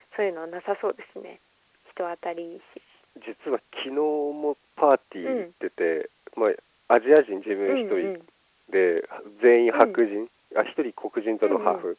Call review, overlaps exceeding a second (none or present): none